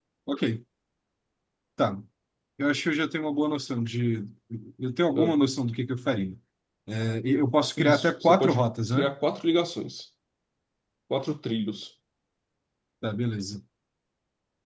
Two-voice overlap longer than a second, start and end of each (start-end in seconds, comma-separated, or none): 7.8-9.1